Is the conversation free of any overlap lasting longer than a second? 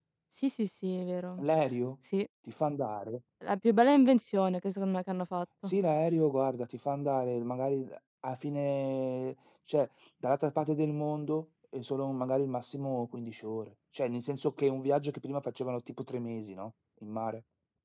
Yes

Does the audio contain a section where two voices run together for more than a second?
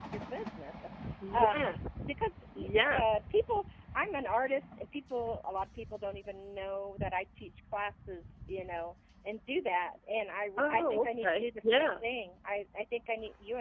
Yes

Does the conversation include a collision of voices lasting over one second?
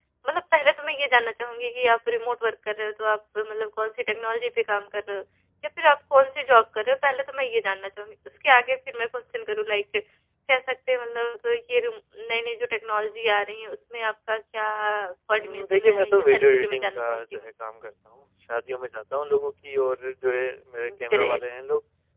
Yes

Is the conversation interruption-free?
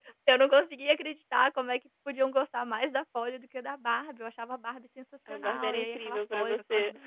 No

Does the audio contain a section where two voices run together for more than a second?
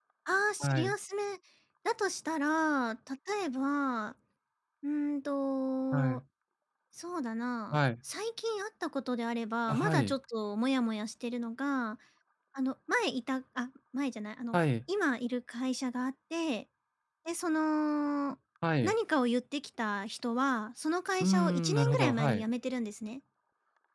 Yes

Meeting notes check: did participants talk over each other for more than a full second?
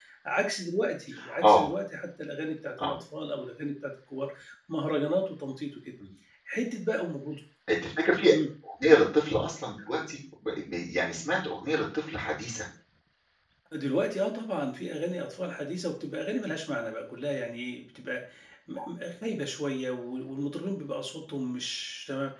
No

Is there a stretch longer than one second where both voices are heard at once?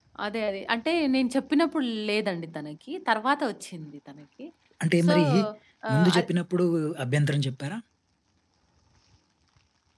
No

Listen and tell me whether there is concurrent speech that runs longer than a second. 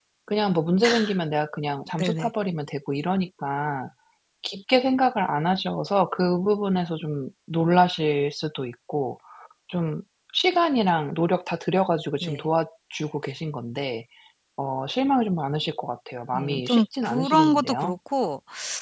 Yes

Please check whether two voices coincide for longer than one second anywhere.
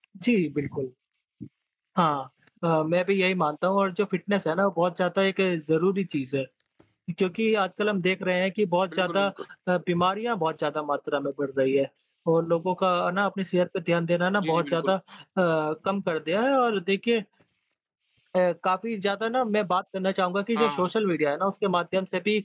No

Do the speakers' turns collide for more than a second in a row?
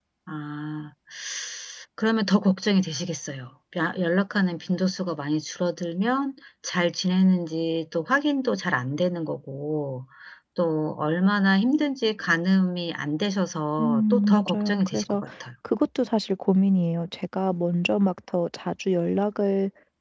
Yes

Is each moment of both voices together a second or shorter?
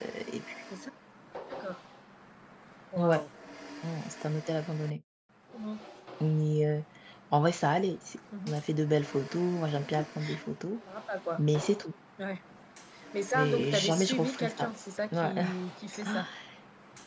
No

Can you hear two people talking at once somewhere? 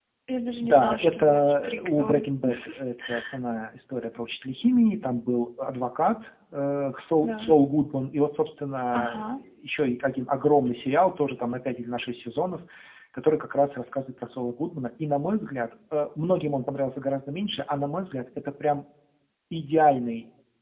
Yes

